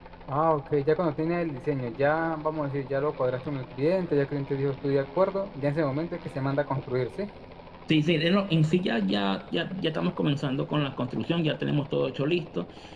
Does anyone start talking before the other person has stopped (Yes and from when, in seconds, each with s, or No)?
No